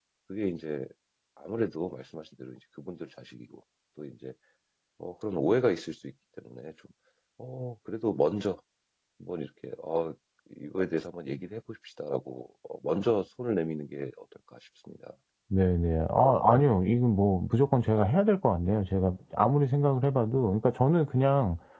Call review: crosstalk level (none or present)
none